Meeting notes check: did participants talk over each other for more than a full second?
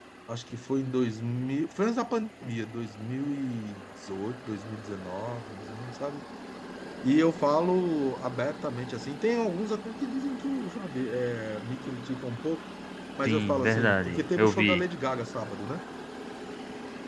Yes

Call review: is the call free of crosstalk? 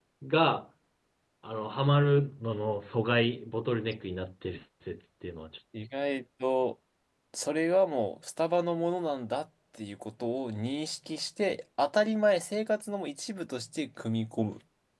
Yes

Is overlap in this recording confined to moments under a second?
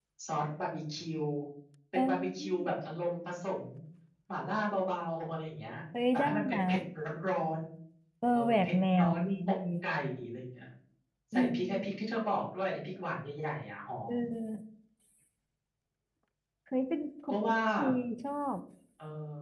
No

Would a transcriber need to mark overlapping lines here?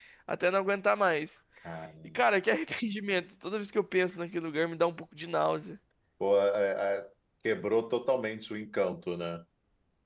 No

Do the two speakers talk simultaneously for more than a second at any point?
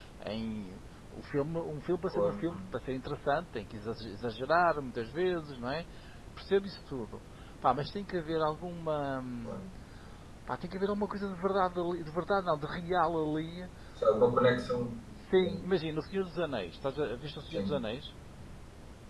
No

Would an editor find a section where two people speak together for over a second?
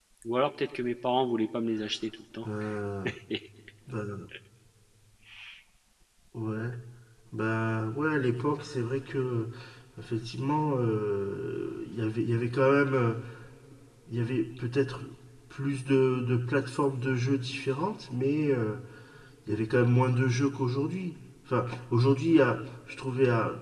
No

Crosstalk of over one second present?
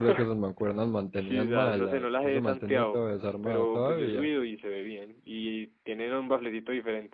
Yes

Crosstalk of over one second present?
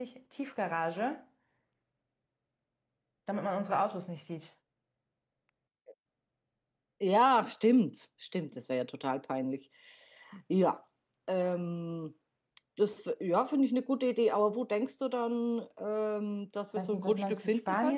Yes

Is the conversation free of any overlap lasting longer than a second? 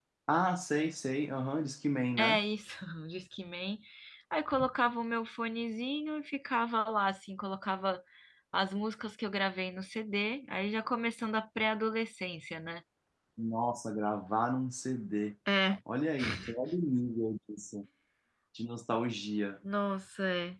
Yes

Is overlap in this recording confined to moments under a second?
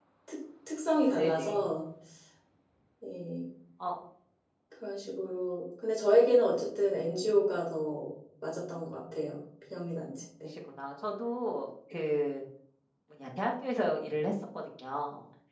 Yes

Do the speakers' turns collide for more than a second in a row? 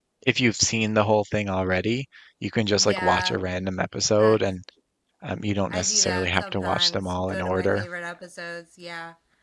Yes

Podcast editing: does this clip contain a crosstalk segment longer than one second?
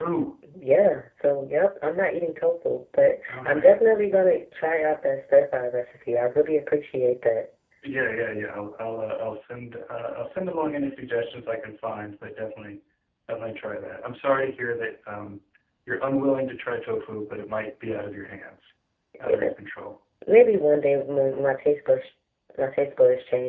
No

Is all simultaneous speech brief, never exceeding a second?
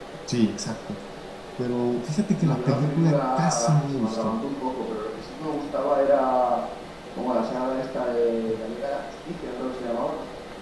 No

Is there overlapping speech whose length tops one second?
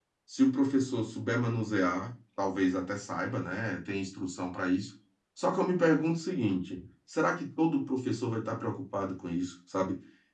No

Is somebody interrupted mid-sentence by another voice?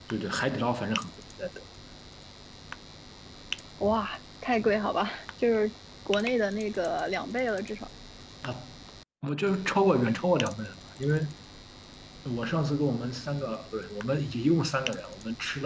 No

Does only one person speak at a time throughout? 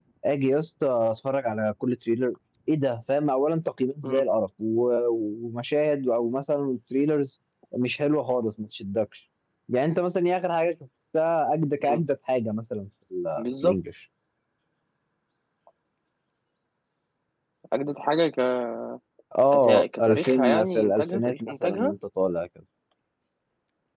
No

